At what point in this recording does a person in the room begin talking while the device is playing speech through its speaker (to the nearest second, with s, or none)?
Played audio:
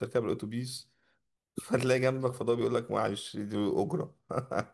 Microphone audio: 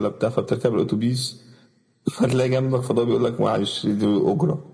none